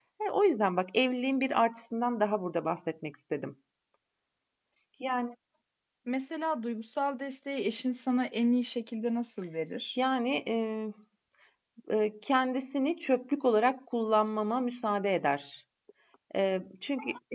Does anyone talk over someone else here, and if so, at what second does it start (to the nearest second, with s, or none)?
none